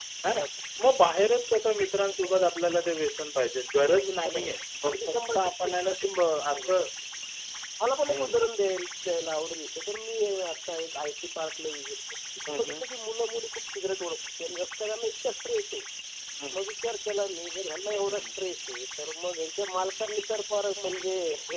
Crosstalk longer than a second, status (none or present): present